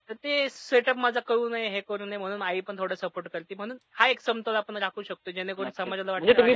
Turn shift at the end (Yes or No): Yes